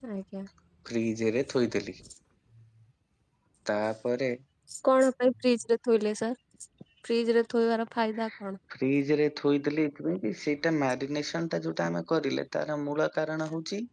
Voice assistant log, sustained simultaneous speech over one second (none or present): none